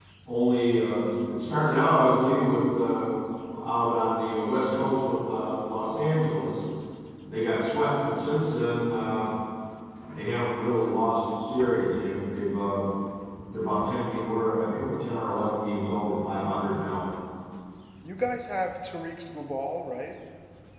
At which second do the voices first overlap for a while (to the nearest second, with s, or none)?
none